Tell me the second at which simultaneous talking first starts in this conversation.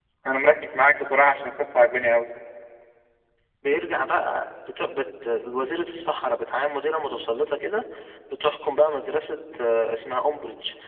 none

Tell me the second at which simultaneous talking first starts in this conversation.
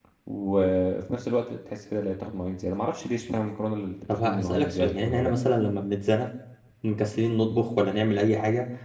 4.1 s

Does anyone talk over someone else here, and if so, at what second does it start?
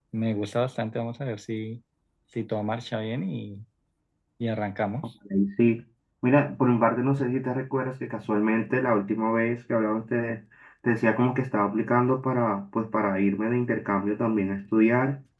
none

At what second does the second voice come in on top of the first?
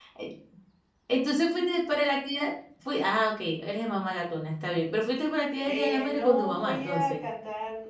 5.6 s

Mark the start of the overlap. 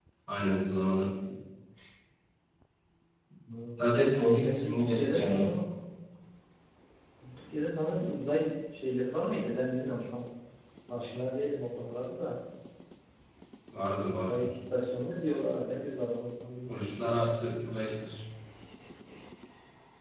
4.3 s

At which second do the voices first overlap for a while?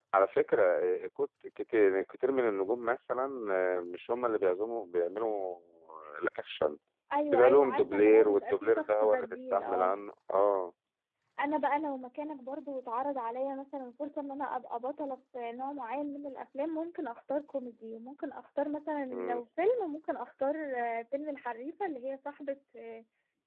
7.3 s

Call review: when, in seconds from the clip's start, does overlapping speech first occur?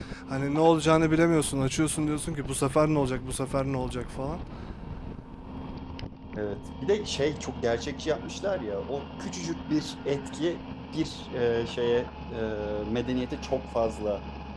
none

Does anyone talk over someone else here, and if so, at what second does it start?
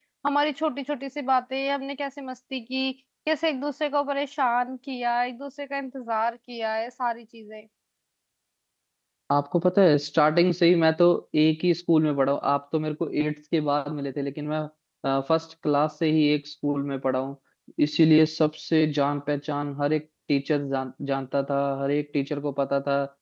none

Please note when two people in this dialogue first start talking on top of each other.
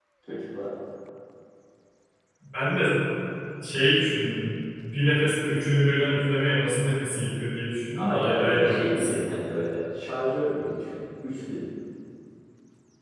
8.0 s

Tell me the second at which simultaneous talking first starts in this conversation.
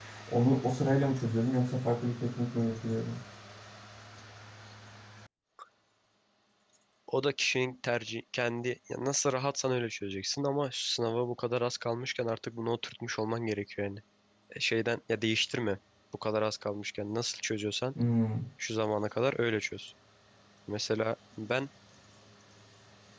none

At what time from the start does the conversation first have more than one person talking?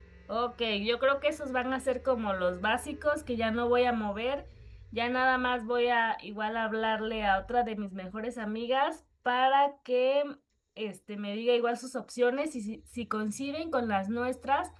none

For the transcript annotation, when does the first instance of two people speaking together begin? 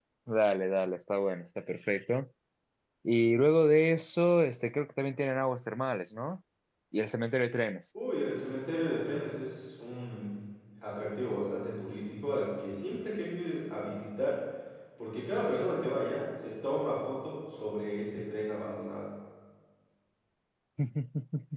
none

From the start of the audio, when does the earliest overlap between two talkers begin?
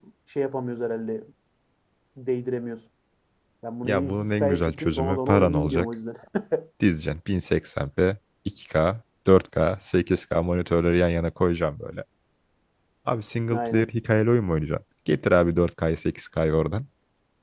3.8 s

